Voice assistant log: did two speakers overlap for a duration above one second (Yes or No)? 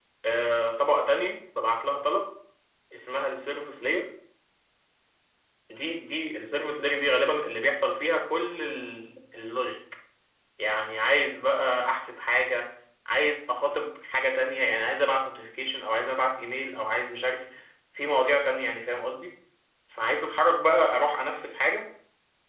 No